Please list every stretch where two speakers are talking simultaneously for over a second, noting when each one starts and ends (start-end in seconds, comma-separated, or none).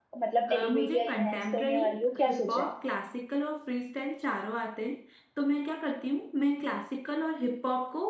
0.5-1.8